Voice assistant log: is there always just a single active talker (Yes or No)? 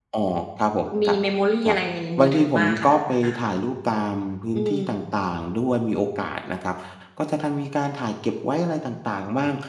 No